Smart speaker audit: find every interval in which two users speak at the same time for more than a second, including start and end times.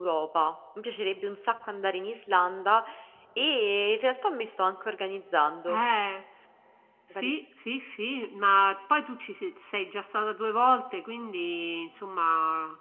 none

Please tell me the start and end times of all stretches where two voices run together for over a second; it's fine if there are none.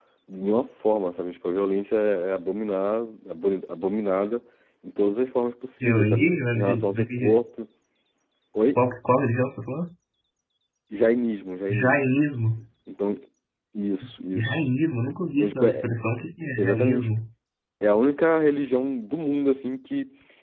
5.8-7.4

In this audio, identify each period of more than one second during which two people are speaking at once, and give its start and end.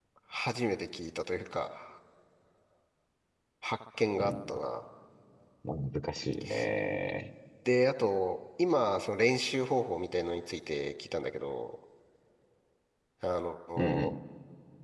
none

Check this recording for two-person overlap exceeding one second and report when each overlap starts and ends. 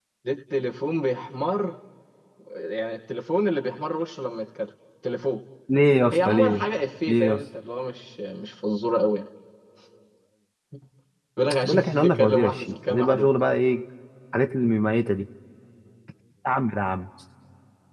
11.6-13.3

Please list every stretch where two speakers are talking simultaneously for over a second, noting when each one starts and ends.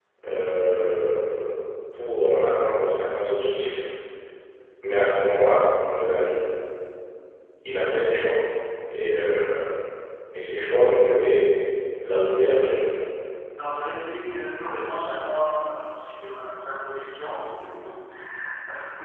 none

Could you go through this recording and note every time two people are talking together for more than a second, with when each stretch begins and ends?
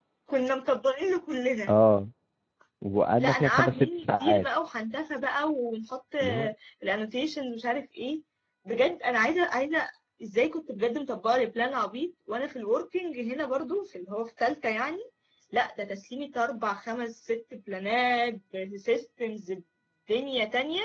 3.2-4.5

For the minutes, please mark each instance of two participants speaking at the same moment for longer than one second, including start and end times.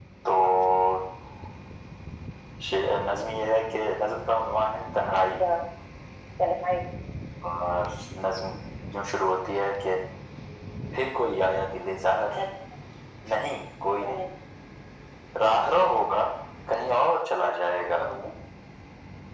none

